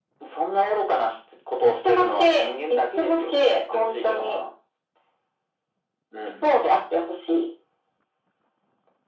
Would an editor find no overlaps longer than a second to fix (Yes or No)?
No